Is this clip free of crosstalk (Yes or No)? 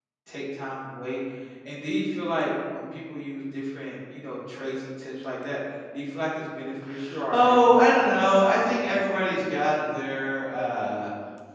No